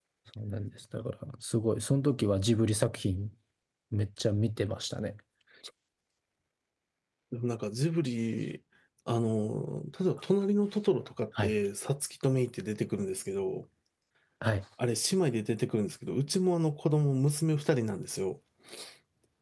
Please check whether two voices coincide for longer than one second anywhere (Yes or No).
No